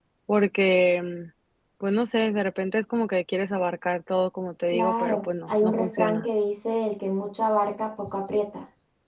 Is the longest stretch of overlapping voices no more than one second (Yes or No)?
No